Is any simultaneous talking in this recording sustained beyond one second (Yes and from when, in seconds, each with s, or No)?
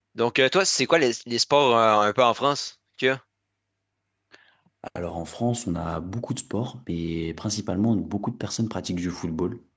No